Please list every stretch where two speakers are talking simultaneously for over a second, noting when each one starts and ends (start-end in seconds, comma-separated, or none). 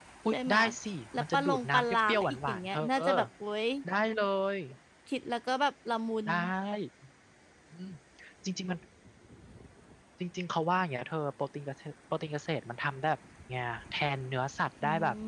1.2-3.1